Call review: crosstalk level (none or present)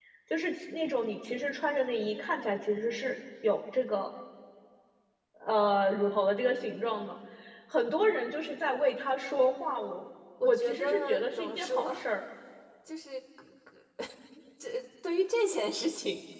present